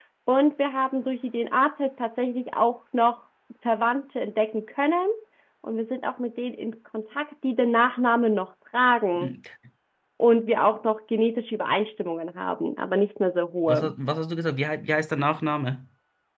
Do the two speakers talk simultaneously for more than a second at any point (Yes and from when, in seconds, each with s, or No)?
No